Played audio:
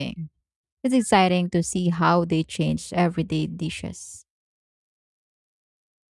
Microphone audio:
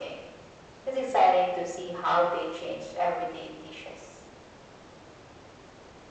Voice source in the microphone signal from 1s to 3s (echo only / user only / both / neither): echo only